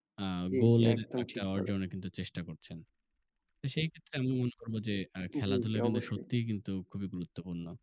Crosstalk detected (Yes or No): Yes